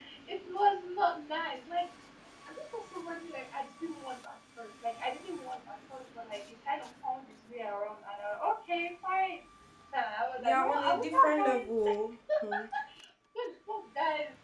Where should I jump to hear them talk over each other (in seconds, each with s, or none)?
10.4 s